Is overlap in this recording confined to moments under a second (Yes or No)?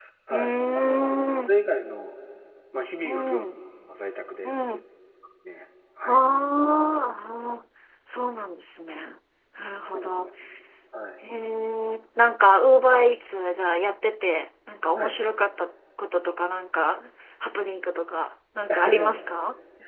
No